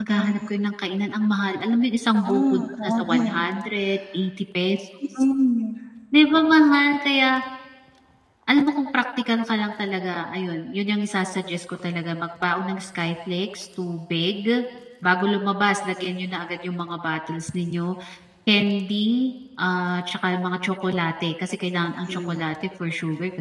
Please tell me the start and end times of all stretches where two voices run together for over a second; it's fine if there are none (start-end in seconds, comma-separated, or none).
2.2-3.5